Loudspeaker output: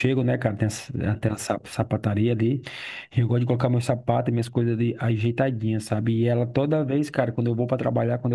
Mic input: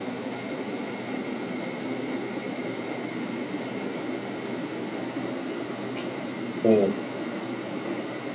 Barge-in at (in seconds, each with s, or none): 6.6 s